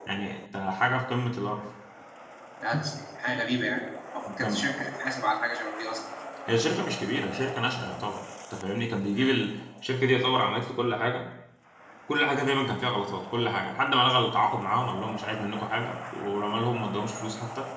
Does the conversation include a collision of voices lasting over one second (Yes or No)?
No